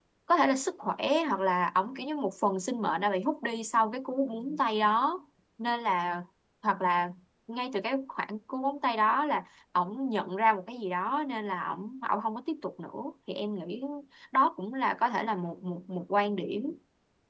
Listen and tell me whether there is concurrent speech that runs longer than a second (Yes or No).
No